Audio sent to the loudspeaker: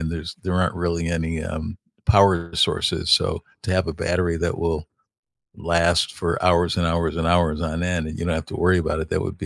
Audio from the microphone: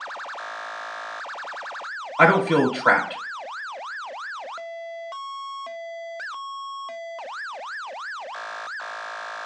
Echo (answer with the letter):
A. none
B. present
A